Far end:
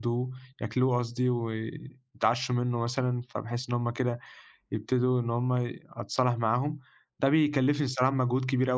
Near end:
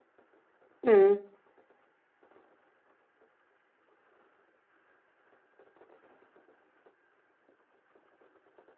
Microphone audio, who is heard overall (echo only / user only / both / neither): user only